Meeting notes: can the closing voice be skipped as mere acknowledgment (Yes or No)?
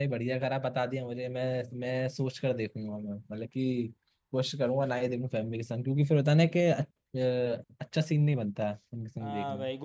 No